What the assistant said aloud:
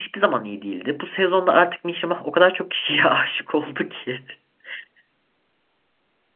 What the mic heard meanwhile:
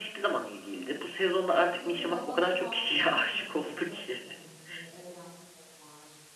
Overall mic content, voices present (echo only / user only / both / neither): both